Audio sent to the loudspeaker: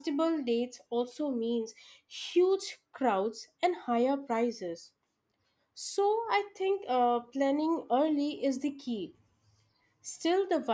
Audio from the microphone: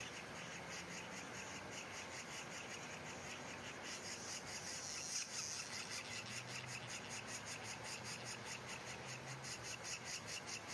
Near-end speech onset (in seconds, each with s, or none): none